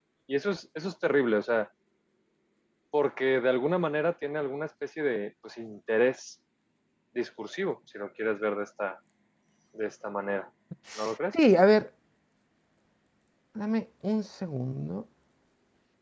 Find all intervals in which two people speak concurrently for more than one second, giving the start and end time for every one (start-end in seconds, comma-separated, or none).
none